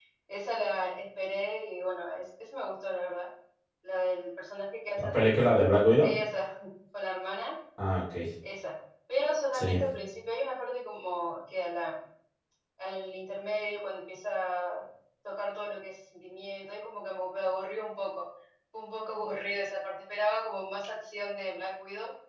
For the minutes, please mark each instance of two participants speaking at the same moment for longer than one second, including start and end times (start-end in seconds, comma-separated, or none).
none